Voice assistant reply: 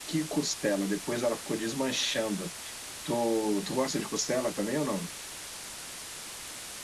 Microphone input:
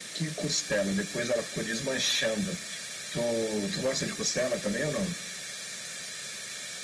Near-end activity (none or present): none